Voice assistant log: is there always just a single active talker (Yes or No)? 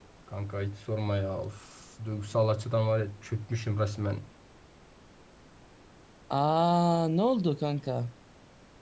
Yes